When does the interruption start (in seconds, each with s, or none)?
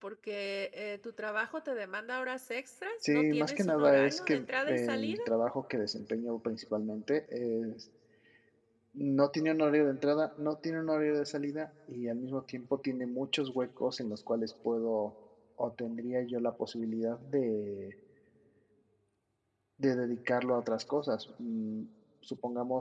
3.0 s